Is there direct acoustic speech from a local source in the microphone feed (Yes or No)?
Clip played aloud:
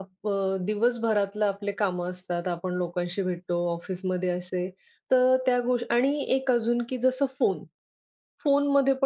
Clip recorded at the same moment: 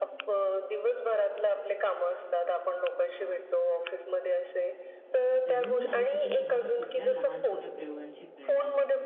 Yes